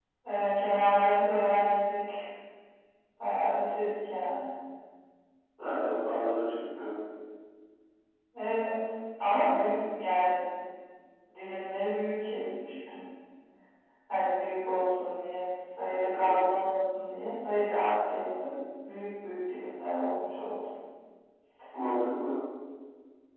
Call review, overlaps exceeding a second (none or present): none